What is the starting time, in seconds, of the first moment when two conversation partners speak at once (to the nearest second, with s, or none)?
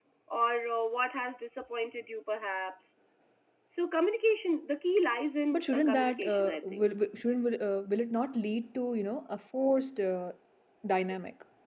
6 s